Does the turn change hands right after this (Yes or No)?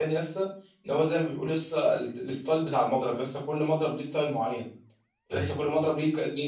No